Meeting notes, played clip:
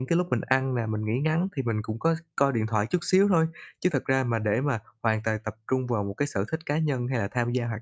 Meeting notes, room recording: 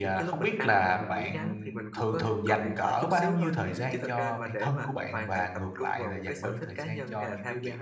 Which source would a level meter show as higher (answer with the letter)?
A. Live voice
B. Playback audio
A